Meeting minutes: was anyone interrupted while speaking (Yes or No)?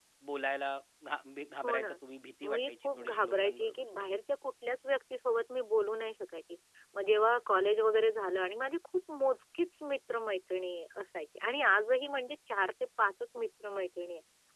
Yes